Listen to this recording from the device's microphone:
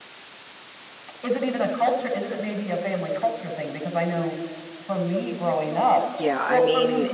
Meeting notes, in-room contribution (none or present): present